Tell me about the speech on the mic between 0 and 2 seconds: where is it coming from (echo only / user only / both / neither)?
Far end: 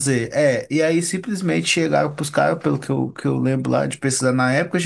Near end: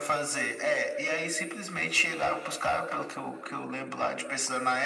echo only